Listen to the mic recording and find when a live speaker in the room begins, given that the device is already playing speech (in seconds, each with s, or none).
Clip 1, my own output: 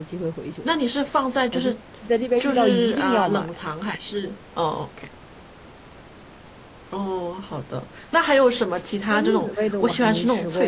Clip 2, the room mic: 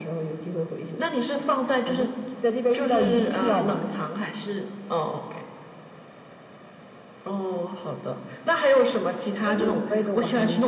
none